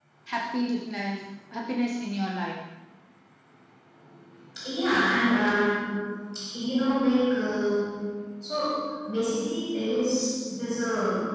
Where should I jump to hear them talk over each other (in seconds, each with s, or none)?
none